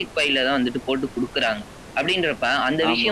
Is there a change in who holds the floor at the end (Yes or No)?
No